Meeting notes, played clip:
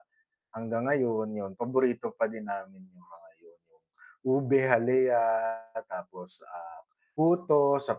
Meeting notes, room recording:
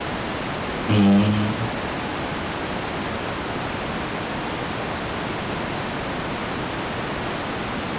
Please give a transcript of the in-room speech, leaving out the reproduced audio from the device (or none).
Hmm.